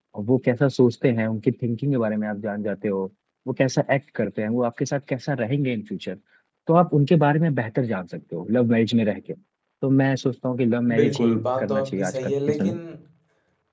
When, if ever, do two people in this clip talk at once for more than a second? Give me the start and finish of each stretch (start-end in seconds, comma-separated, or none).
10.9-12.8